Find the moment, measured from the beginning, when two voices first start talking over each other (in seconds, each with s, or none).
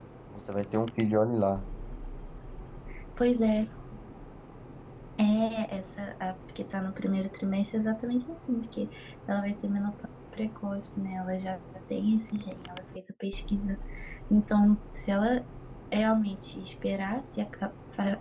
none